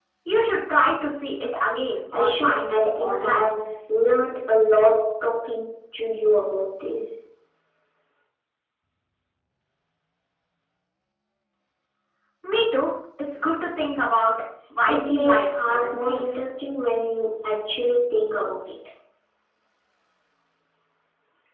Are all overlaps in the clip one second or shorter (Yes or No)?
No